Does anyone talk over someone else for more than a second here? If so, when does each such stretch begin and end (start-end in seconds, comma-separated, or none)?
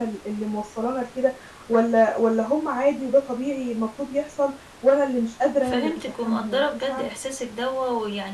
5.6-7.0